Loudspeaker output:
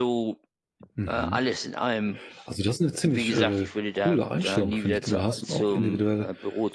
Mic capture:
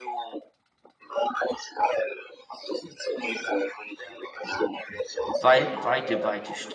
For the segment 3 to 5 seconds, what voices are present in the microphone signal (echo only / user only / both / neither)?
echo only